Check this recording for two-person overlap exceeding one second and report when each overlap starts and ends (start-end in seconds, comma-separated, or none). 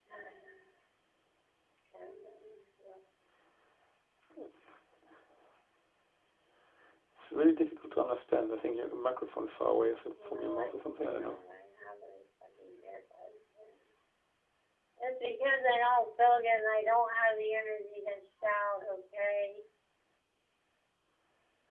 10.1-11.4